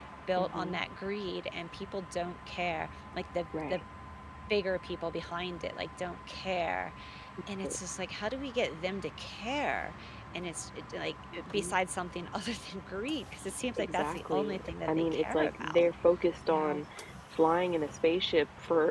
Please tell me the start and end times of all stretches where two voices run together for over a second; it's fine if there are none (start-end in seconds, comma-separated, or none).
13.8-15.8